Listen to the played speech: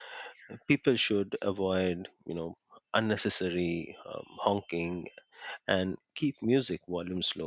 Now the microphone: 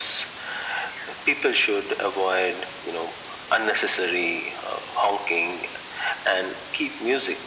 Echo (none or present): present